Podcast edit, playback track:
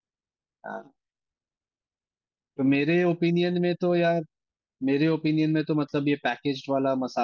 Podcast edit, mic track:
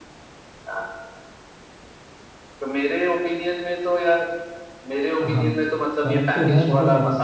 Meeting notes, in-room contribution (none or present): present